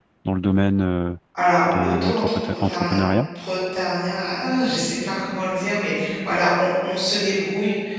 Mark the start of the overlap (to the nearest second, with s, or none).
2 s